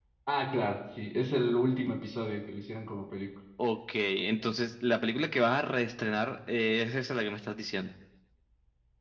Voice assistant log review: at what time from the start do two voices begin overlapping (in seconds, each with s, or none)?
none